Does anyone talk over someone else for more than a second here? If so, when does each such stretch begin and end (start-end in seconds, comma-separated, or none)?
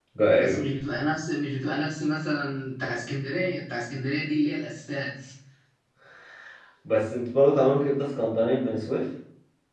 none